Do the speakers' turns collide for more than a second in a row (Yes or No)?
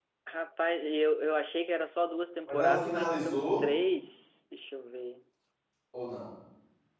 Yes